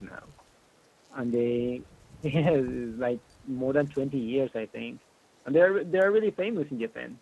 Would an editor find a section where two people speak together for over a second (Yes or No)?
No